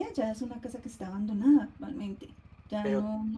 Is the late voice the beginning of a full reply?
No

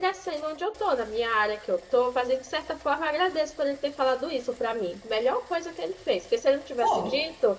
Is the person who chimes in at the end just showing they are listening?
Yes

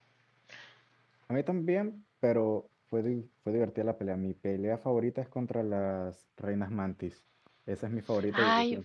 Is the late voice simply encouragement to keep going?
No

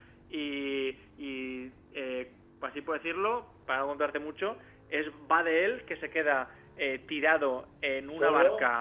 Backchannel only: Yes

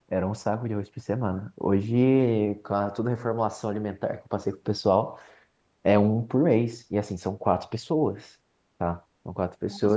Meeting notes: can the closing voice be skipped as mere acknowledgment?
No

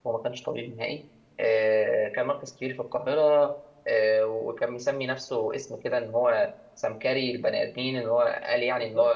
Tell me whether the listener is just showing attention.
No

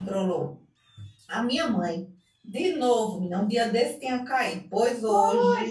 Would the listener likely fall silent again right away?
No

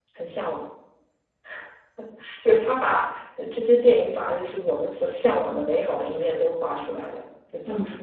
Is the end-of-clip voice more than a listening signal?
Yes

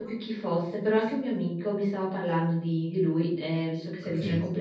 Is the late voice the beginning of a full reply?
No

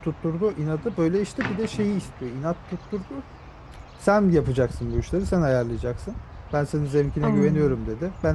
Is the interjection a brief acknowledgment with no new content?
Yes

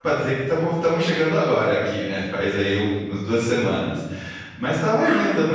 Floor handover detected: No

